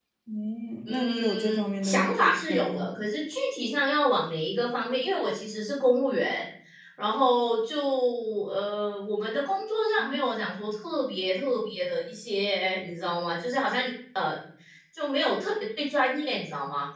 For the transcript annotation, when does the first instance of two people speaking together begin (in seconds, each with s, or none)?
0.9 s